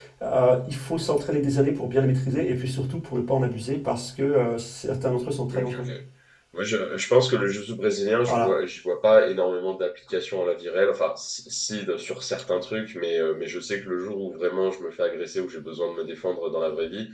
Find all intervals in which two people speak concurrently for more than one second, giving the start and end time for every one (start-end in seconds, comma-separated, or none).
none